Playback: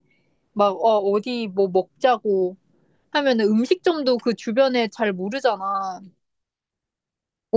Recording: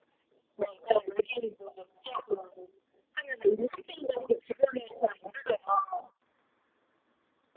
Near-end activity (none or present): none